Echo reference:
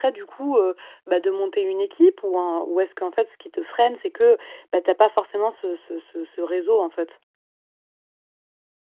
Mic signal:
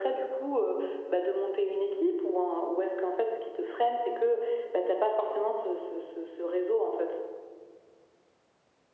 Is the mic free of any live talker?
Yes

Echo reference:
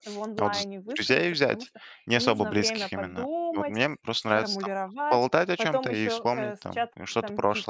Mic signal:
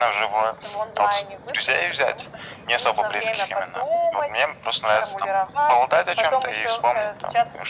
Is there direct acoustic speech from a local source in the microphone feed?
No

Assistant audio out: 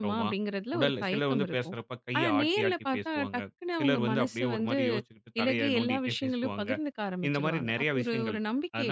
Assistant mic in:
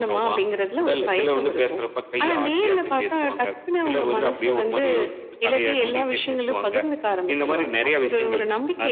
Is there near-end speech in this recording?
No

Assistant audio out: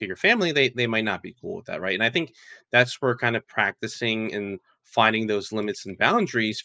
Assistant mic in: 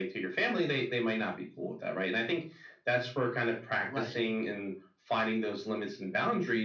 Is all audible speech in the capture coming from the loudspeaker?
No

